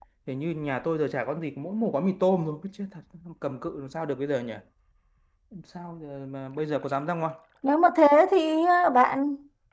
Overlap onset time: none

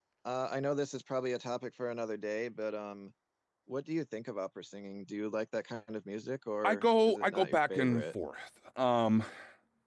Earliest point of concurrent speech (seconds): 6.6 s

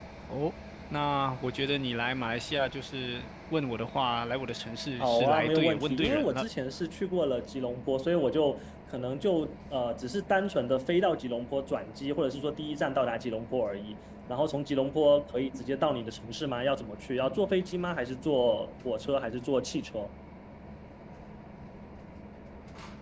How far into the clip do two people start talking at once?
5.0 s

